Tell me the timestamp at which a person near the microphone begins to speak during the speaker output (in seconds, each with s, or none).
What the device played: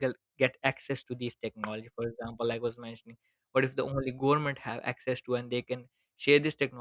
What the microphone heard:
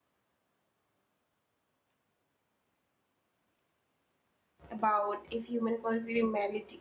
4.7 s